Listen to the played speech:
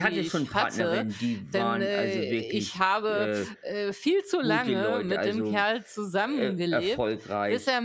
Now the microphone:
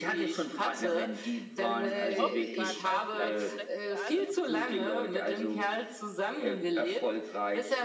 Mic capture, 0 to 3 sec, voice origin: both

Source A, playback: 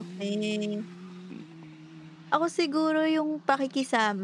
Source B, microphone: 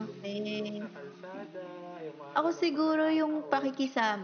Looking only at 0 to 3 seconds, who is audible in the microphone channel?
both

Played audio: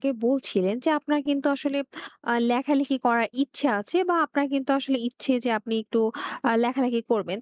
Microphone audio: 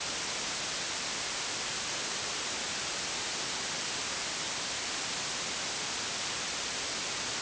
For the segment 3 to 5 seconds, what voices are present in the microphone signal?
neither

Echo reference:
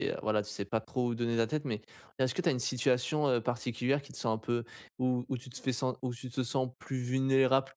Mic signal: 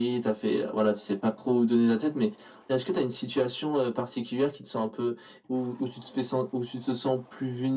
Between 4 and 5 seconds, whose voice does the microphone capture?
echo only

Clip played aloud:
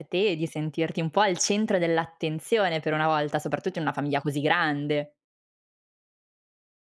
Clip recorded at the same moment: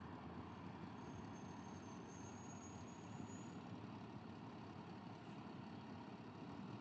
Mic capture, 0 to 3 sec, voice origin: neither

